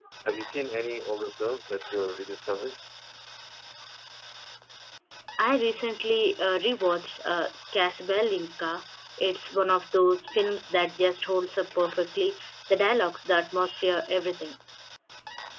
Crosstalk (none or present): none